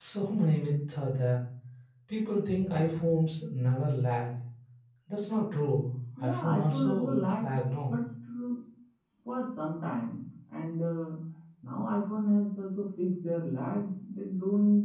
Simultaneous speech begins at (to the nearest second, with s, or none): 6 s